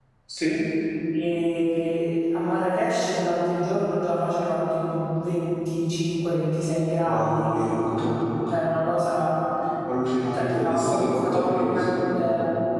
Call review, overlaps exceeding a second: present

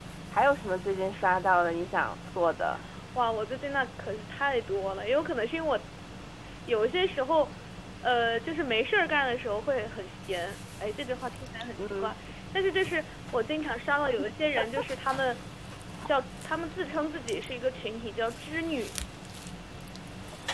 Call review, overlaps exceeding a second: none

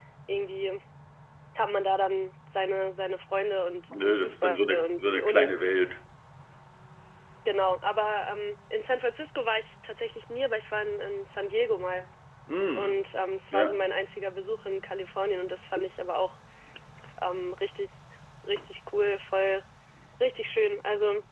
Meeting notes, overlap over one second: present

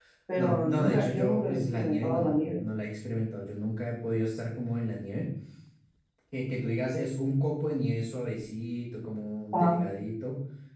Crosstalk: present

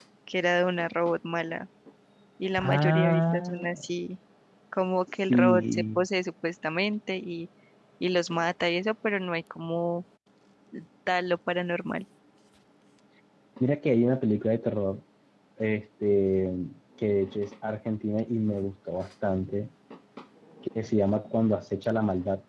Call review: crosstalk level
present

